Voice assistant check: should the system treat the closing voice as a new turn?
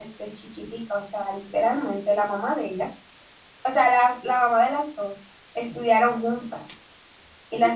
Yes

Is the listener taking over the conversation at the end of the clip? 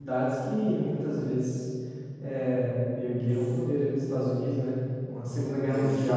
No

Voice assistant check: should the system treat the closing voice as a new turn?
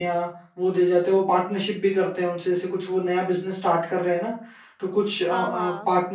No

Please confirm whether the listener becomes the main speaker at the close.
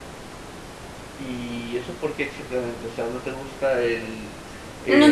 Yes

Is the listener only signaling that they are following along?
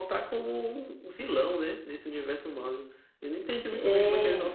Yes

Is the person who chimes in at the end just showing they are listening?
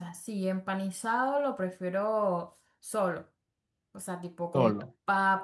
Yes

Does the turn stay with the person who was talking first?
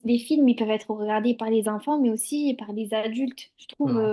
Yes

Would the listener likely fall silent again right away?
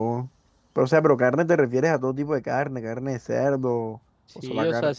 No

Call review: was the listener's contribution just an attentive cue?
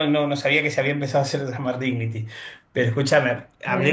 No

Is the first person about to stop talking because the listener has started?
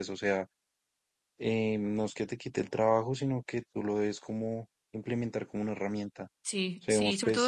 Yes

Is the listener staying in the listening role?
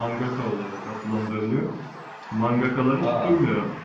Yes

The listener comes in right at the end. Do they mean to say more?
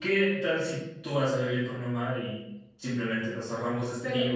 Yes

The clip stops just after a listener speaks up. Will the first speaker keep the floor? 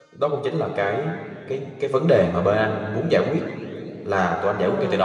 Yes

